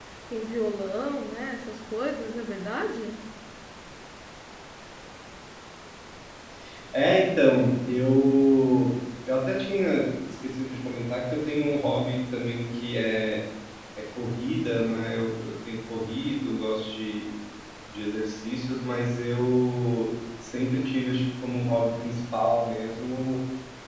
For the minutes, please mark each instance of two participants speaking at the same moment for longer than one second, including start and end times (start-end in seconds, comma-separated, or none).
none